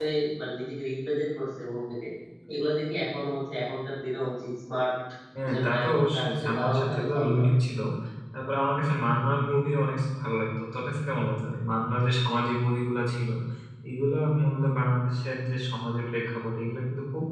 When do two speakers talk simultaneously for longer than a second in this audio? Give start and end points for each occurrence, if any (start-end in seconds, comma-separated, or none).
5.5-7.5